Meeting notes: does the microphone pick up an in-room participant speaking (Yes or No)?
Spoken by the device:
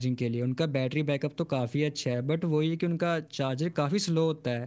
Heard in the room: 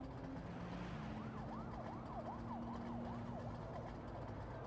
No